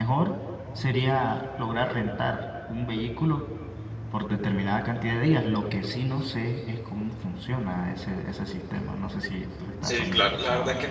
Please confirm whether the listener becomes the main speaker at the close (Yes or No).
Yes